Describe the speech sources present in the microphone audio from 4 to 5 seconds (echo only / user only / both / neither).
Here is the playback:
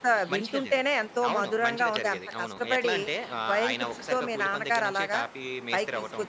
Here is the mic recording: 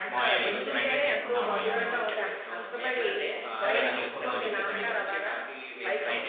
both